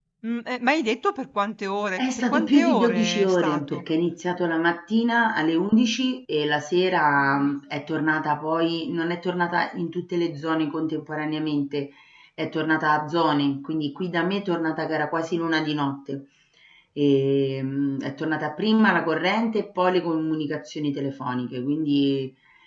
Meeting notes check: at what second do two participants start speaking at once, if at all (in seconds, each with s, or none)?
2.0 s